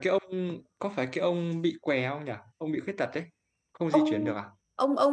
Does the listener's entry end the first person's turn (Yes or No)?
Yes